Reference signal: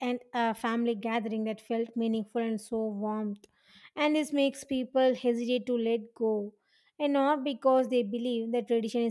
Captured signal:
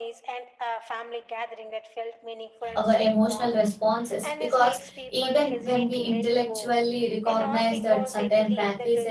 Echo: present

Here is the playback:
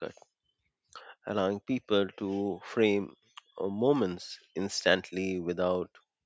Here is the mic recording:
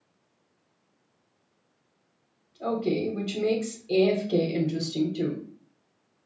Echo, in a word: none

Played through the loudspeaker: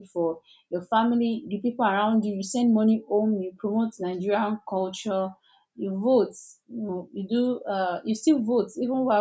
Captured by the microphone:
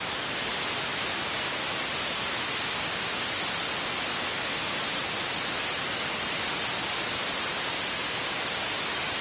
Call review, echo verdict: none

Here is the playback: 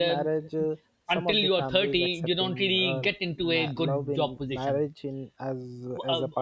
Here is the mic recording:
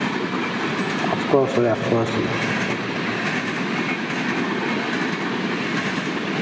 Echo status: none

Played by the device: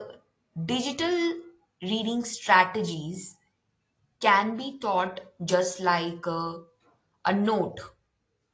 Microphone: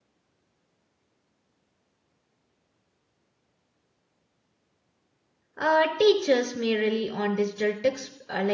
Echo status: none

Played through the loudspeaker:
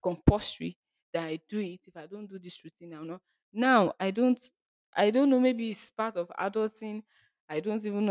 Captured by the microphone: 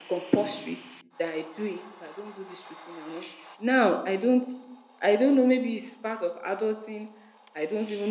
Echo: present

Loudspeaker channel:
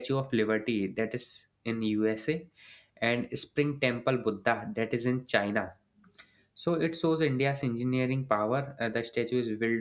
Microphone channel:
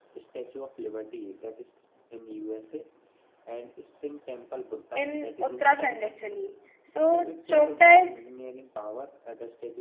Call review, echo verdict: present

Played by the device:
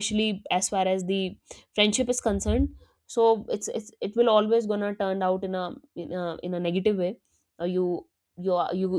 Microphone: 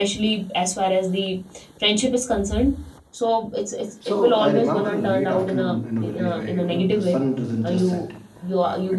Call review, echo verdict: present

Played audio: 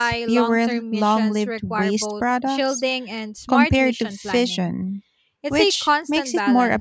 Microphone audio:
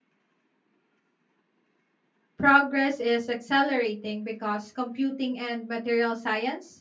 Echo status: none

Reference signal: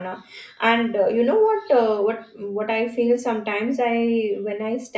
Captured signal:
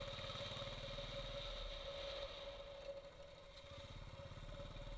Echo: none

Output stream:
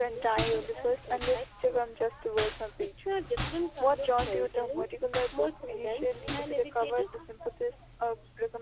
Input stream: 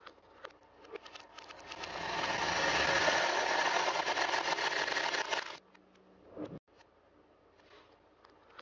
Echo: none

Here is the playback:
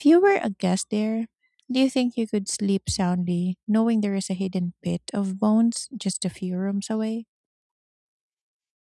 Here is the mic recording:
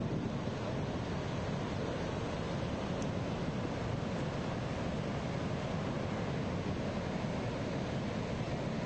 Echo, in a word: none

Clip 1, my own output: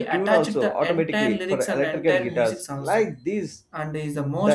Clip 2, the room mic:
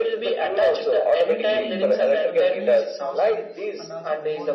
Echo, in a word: present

